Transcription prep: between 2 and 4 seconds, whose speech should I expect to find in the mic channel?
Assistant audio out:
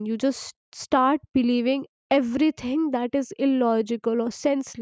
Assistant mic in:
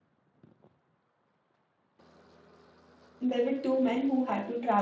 user only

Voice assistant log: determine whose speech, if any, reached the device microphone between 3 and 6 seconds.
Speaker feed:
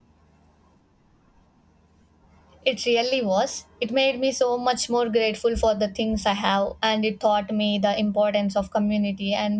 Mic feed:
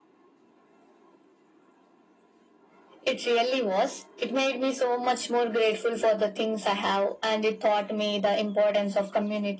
echo only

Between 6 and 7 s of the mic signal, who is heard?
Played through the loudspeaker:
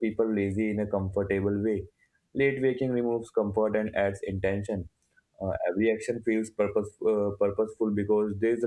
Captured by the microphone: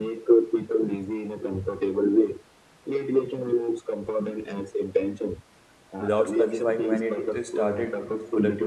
both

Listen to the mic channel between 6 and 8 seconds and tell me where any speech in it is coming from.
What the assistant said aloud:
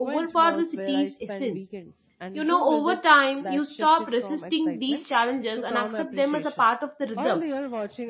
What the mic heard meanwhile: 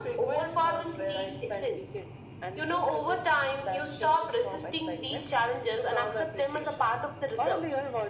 echo only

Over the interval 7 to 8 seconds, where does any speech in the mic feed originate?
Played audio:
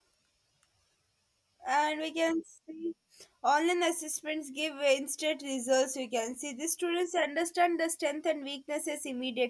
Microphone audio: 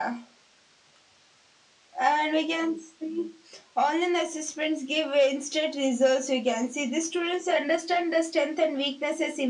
echo only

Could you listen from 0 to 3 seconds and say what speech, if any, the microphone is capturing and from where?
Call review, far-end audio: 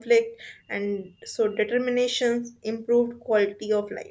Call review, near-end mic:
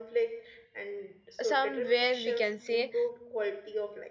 both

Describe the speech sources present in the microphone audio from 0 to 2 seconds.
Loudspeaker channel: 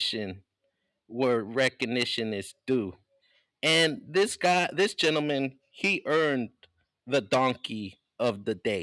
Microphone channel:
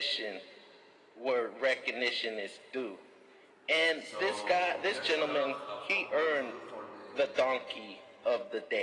echo only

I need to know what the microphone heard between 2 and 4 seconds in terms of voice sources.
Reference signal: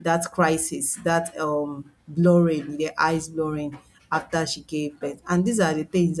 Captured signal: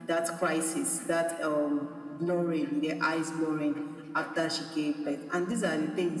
echo only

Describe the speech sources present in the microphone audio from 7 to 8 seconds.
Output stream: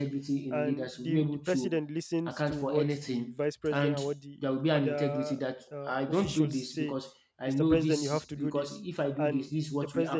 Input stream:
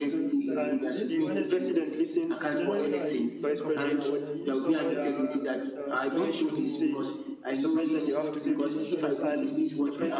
both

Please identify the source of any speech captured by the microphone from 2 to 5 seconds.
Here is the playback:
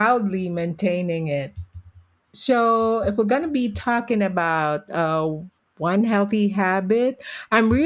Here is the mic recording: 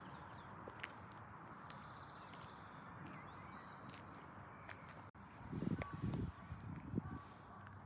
neither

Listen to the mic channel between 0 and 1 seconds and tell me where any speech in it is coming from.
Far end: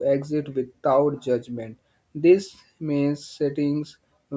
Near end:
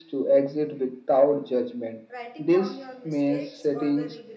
echo only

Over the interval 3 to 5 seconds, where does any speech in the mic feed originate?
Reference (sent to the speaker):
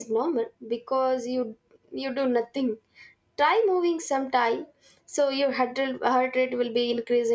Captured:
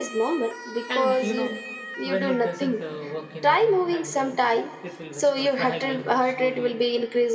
both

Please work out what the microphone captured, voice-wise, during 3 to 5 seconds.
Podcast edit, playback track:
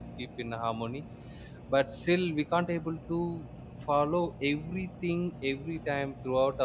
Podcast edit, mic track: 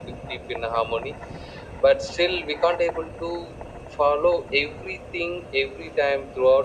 echo only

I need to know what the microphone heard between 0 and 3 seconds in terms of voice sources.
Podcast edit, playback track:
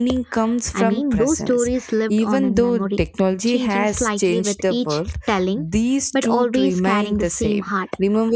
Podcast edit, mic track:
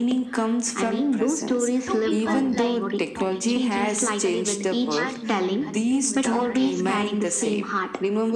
both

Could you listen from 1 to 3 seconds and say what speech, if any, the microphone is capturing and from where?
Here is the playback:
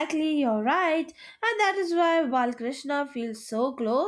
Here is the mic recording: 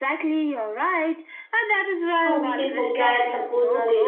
both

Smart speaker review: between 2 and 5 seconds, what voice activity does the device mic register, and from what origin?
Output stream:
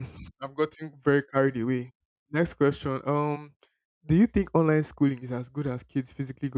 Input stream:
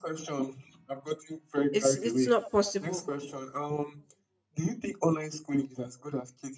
both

